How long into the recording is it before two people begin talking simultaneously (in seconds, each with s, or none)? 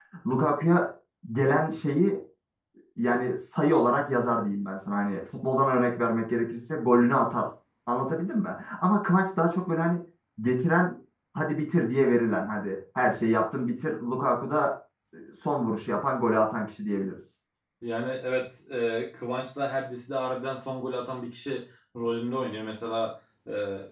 none